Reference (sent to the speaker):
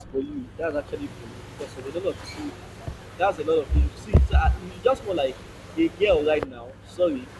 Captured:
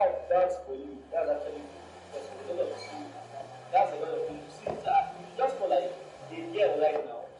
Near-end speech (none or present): none